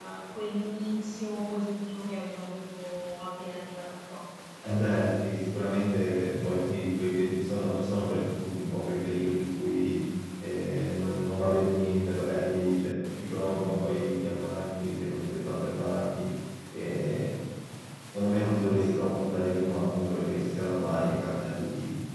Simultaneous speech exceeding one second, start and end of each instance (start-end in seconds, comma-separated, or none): none